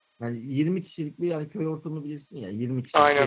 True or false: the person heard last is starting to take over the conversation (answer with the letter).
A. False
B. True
A